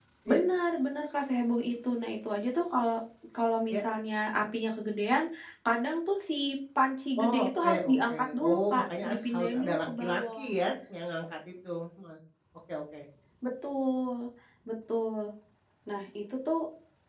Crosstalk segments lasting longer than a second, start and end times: 7.2-10.5

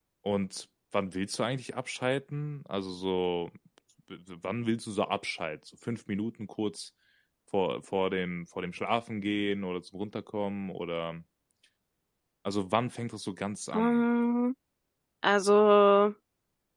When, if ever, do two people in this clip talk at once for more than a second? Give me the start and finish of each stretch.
none

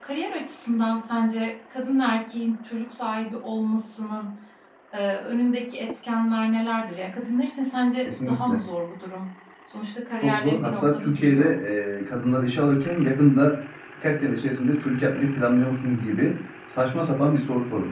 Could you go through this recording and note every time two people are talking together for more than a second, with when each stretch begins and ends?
10.2-11.5

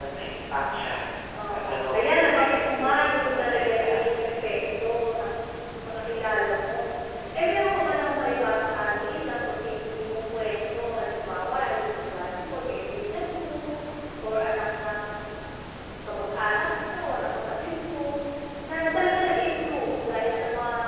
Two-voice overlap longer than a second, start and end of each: 2.4-4.2

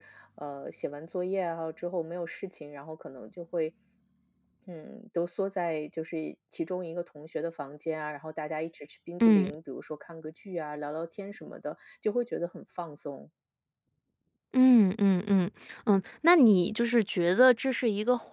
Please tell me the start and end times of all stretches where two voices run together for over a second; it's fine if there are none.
none

